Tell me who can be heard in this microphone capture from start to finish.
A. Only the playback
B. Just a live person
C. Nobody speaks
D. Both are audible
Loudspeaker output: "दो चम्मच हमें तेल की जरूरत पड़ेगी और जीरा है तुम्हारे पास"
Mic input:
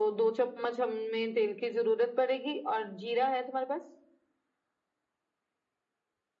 A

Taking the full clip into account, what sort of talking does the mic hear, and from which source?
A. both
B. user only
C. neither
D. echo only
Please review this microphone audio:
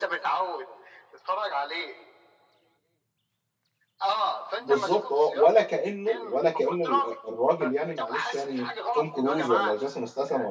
A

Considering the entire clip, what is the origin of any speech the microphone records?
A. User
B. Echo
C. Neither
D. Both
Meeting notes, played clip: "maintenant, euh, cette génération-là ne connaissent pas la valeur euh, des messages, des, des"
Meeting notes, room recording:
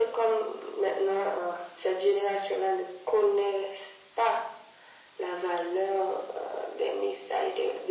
B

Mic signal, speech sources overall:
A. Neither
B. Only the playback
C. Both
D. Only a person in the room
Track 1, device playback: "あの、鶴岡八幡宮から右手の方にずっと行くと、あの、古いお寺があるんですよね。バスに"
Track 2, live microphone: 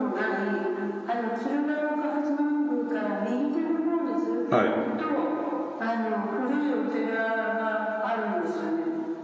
C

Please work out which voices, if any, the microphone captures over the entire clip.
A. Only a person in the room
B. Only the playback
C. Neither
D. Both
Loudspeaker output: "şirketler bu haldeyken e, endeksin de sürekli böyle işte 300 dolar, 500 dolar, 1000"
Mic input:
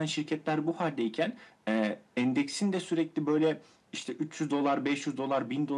B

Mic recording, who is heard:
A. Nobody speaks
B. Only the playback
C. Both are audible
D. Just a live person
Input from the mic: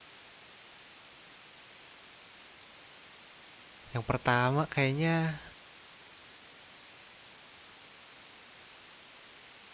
D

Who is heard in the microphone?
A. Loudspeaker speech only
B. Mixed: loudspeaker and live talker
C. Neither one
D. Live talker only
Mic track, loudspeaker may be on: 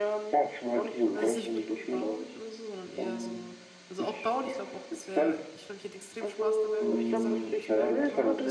B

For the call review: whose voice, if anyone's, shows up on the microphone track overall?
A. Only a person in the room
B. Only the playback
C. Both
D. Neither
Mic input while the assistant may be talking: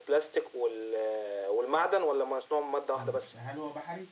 C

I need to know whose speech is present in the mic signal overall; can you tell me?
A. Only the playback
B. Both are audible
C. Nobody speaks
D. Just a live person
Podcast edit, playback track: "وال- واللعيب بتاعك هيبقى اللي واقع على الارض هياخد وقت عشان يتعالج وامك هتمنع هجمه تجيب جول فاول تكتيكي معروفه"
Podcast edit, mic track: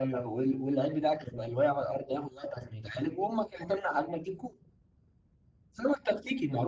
A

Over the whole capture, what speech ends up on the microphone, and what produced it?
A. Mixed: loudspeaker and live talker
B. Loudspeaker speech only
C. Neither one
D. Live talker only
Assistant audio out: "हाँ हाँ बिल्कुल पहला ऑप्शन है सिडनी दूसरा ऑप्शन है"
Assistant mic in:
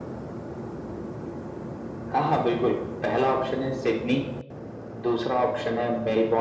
B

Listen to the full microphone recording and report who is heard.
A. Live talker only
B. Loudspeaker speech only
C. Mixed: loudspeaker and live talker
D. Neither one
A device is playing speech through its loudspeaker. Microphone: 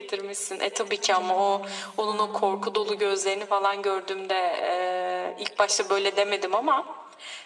C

